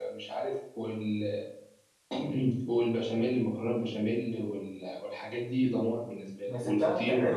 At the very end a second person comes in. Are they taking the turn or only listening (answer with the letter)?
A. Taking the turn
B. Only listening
A